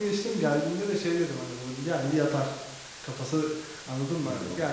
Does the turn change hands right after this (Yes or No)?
No